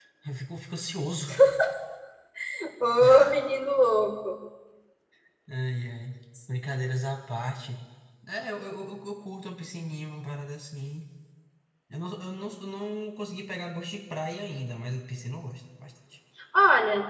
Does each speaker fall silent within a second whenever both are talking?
Yes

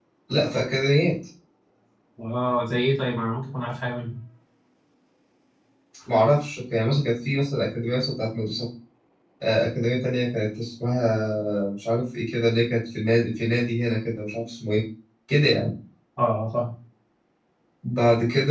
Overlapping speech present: No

